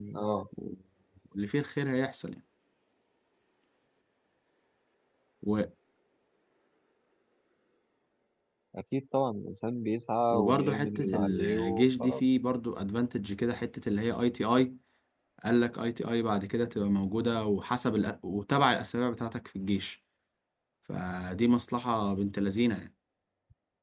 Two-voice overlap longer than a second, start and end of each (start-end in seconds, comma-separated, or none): 10.3-12.2